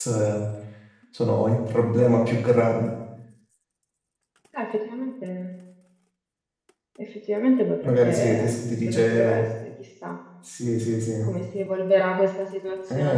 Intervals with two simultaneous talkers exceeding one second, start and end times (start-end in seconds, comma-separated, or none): 7.8-9.5